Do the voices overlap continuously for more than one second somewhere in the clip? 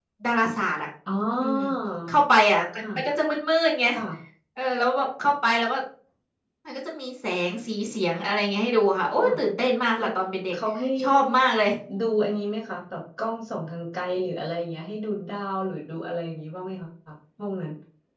No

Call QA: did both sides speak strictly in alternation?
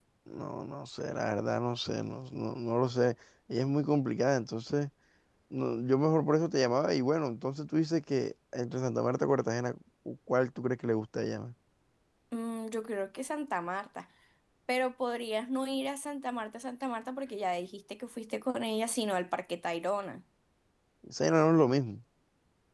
Yes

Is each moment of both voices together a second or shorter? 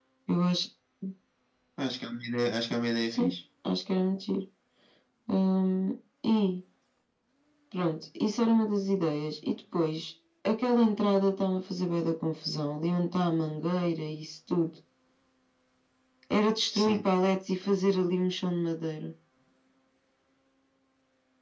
Yes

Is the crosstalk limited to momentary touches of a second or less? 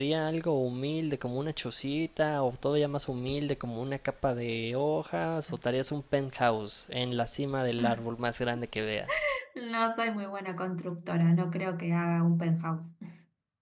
Yes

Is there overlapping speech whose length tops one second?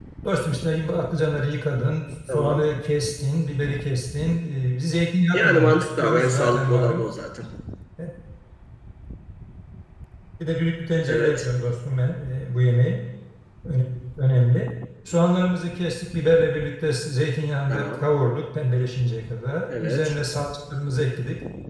Yes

